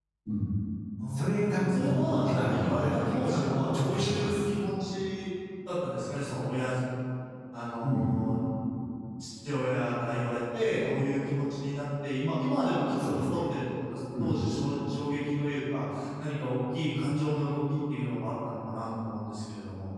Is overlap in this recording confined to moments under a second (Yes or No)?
No